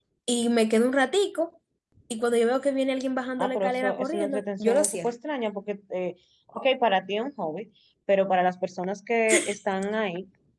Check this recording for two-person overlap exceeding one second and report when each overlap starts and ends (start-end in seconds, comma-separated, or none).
3.4-5.1